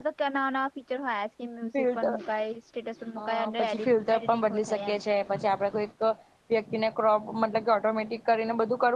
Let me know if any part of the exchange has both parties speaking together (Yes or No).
Yes